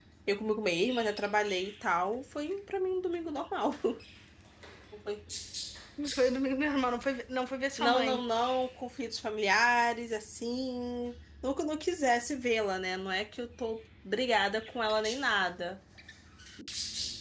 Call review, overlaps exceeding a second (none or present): none